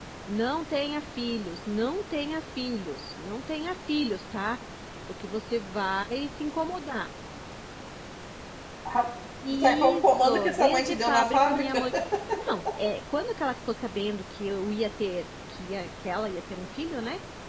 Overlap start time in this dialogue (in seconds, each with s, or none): 9.5 s